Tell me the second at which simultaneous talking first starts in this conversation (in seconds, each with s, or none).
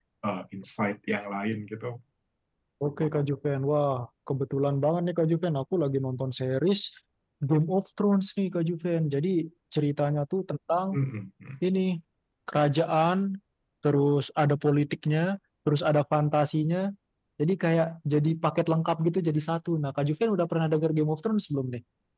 none